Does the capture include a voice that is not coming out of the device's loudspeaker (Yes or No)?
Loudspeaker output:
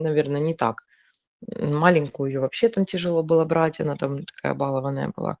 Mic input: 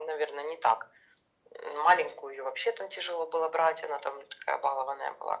No